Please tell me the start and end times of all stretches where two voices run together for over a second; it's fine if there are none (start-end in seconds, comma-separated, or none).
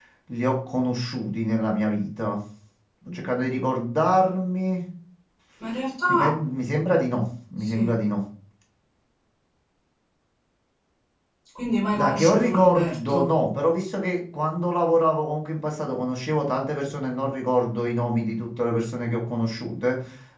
11.9-13.3